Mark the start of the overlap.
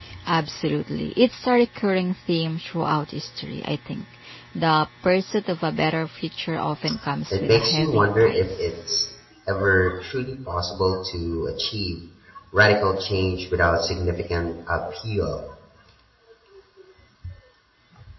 7.3 s

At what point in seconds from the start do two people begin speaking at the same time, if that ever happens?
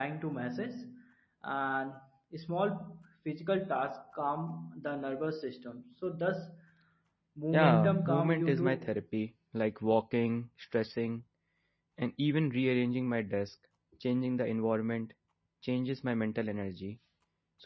7.5 s

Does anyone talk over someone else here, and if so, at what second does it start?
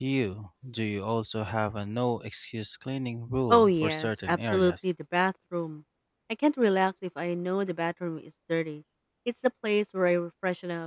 3.5 s

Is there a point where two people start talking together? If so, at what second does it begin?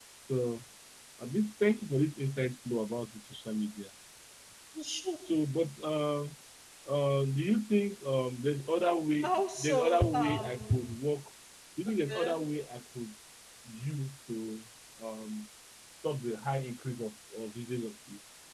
9.2 s

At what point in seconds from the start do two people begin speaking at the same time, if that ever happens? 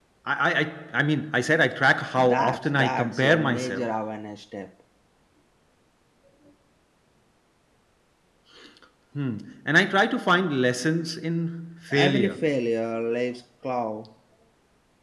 2.2 s

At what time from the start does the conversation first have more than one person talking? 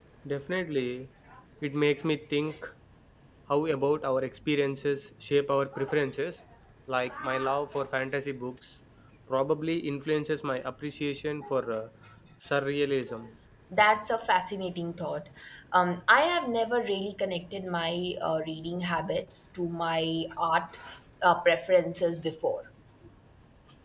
none

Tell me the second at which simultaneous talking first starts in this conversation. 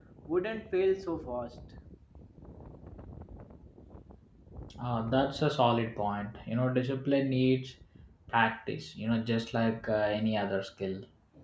none

